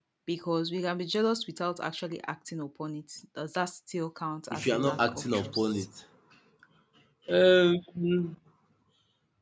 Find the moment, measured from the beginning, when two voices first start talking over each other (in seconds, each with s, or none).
4.5 s